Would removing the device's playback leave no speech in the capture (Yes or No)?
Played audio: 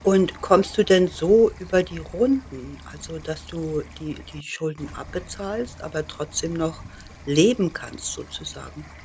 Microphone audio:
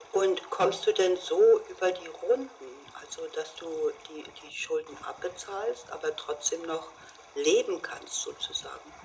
Yes